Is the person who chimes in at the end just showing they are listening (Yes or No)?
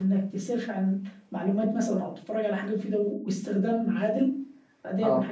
Yes